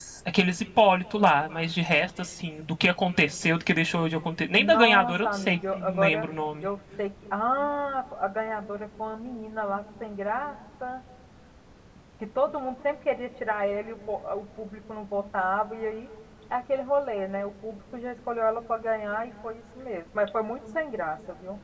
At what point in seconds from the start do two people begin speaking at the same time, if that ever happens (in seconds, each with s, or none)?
4.6 s